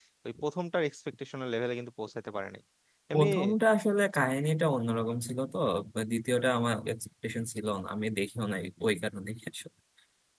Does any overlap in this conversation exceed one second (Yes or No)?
No